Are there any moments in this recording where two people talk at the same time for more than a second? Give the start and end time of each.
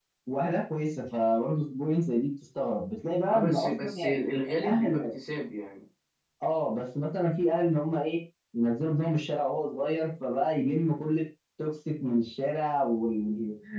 3.3-5.0

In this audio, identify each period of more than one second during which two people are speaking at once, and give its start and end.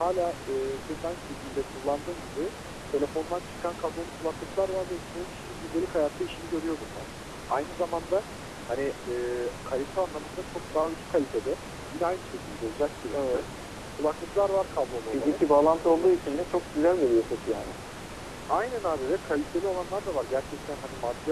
none

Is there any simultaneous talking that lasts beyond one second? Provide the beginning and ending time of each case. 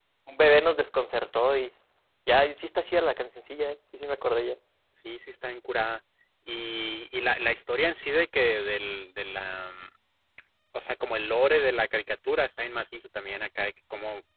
none

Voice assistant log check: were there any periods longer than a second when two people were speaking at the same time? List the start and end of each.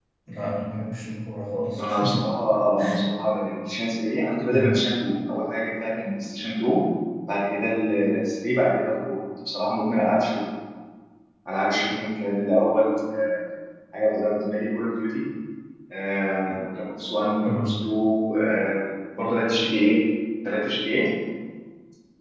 none

